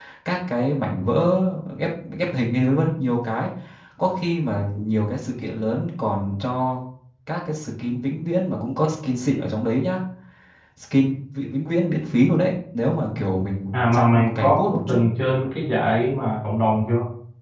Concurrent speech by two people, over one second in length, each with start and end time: 13.7-15.0

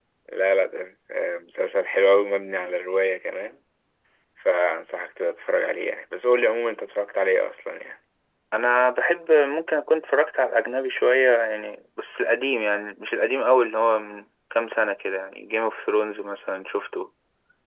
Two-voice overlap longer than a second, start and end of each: none

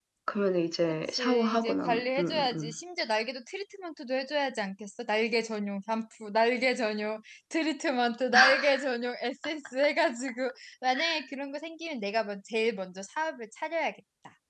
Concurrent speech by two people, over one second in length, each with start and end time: 1.1-2.7

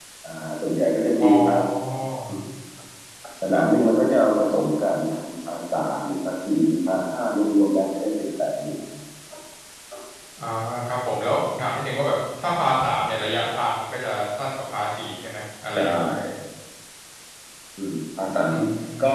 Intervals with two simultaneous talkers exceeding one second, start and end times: none

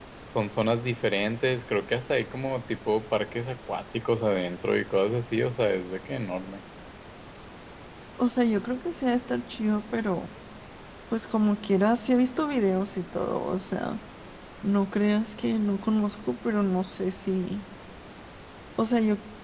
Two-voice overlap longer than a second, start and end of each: none

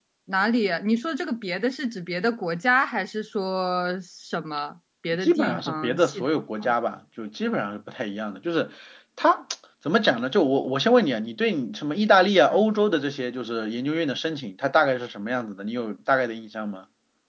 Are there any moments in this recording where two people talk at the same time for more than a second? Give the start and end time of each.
5.2-6.8

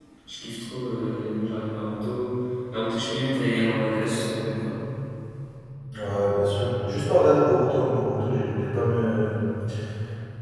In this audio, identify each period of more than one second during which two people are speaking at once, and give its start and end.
none

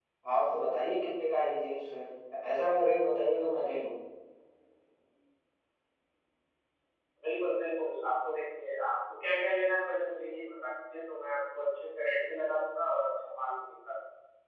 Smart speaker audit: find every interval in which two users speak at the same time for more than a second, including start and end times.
none

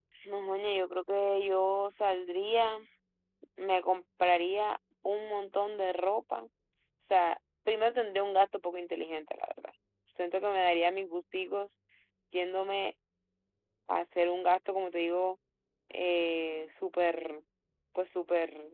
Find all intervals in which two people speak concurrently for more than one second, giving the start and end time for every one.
none

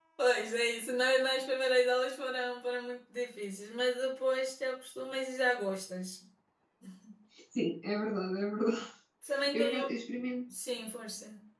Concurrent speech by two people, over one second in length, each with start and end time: none

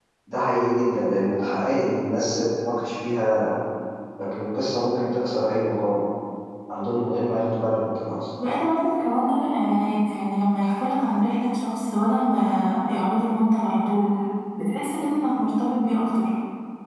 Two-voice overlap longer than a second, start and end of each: none

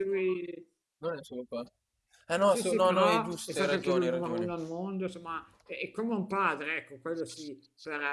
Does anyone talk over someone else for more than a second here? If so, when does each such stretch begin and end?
2.5-4.5

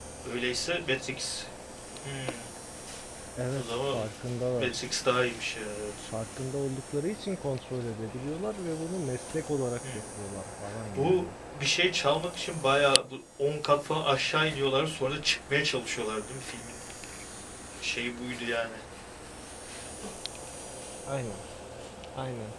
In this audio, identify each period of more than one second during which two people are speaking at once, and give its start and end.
none

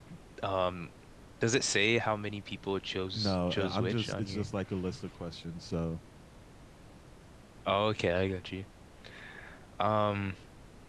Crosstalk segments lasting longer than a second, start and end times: 3.1-4.5

